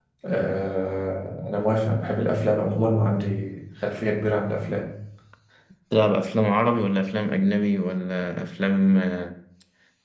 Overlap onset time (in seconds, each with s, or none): none